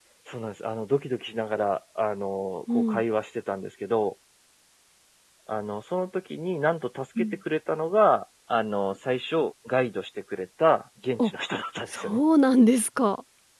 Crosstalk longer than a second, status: none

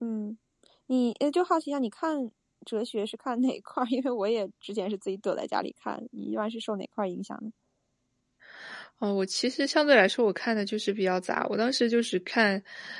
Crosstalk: none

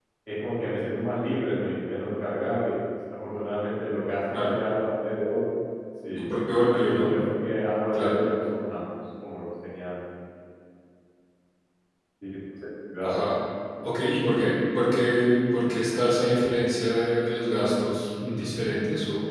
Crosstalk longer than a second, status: none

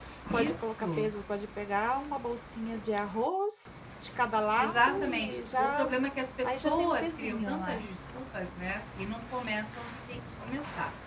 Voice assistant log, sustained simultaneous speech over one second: present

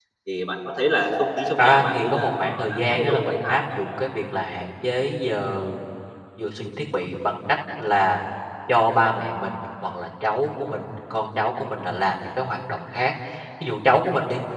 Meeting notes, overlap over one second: present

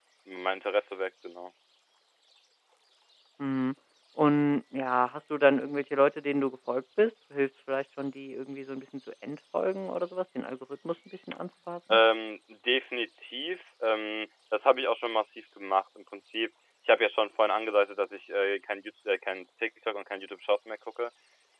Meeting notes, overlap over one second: none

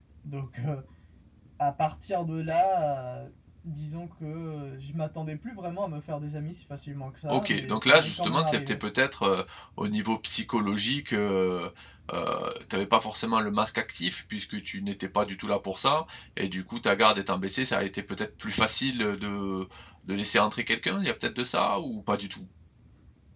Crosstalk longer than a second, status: present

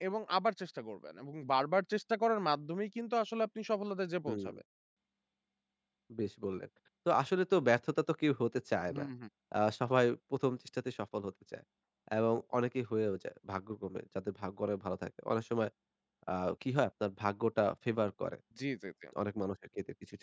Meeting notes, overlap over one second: none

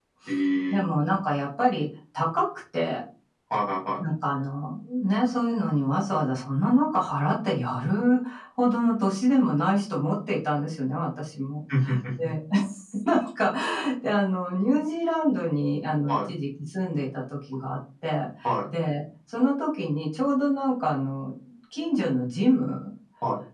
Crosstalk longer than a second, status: none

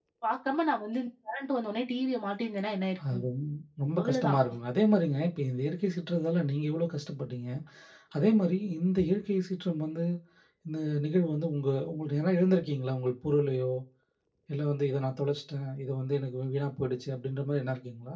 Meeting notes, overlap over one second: none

